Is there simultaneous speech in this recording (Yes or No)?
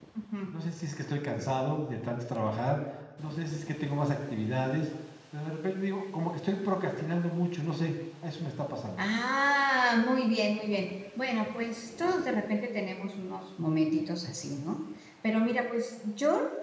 No